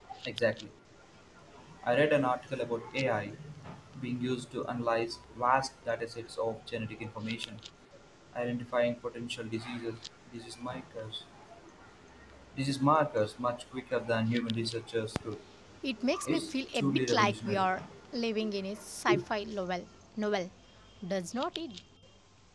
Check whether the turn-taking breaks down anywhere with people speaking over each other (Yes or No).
Yes